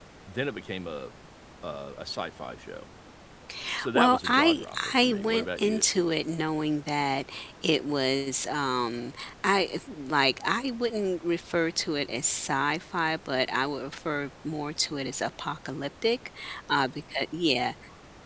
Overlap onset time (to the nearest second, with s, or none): 4 s